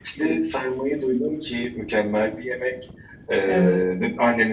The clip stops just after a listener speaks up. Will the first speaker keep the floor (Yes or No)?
Yes